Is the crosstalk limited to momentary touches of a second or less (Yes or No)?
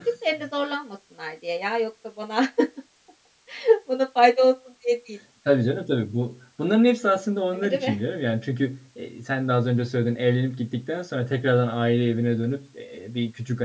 Yes